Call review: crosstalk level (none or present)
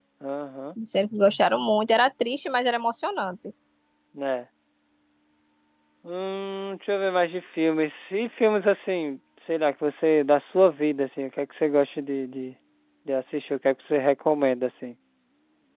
none